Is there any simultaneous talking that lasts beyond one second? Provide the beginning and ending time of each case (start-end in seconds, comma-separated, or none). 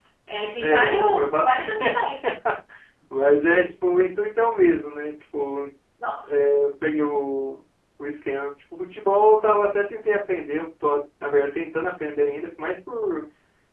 0.6-2.1